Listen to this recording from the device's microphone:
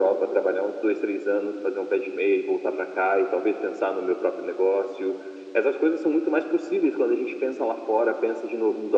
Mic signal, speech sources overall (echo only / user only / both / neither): echo only